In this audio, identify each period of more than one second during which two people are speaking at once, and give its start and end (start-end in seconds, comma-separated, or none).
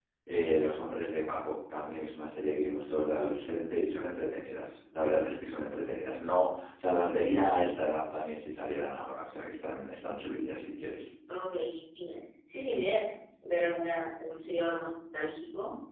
none